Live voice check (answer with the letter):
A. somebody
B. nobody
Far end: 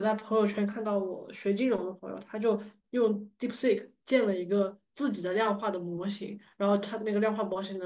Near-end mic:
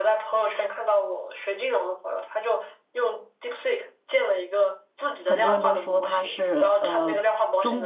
A